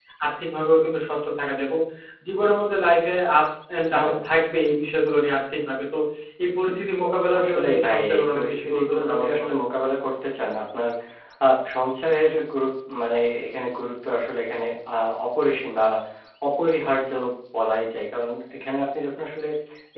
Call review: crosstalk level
present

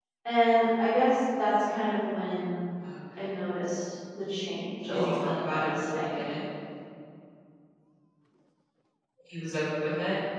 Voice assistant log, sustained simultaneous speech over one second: present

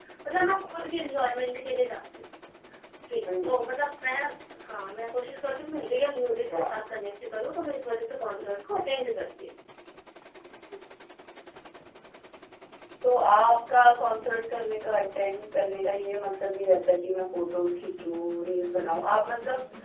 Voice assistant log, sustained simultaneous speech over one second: none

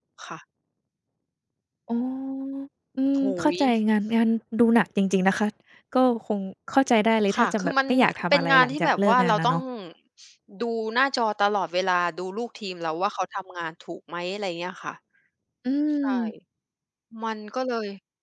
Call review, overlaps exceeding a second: present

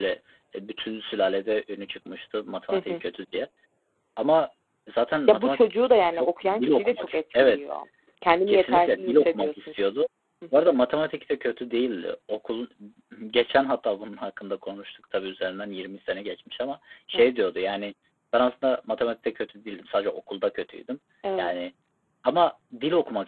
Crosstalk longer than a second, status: present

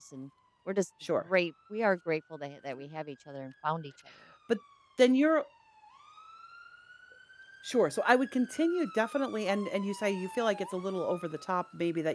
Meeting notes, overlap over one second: none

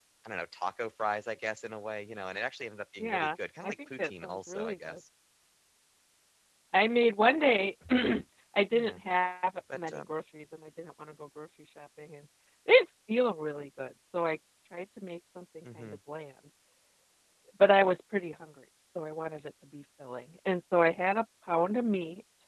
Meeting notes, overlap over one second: present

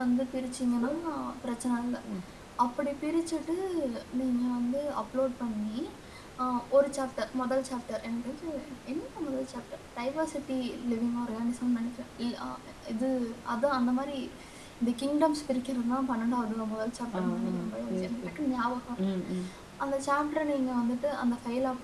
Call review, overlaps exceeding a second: present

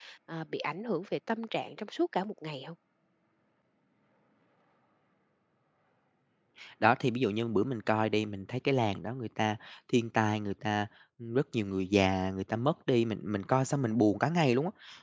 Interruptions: none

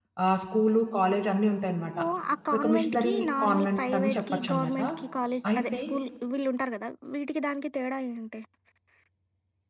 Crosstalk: present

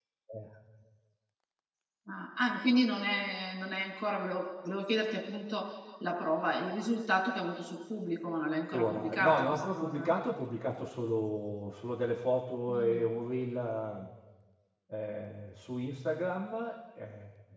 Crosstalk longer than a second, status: present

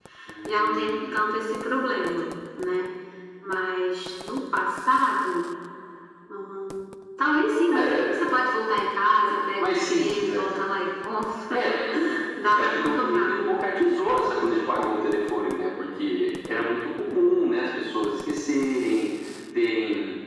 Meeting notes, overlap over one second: present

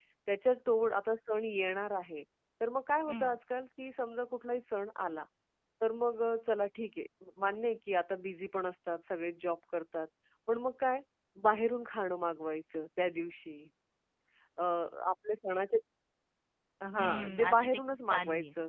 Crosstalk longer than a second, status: present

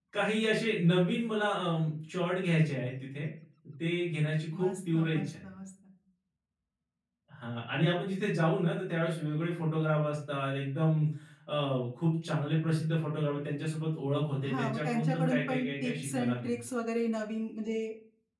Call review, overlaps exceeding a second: present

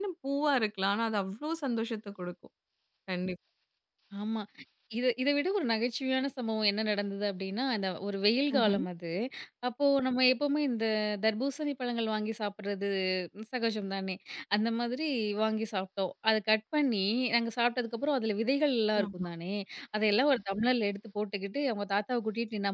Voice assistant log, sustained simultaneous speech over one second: none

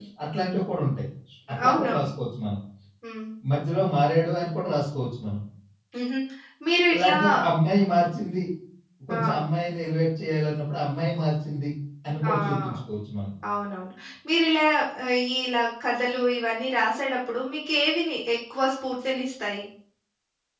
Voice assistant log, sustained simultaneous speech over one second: none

